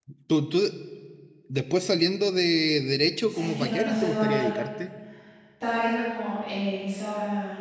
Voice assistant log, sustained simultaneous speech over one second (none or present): present